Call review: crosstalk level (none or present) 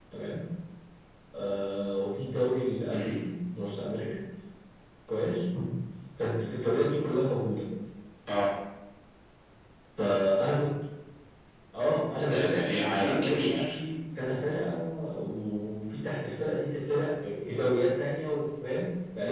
present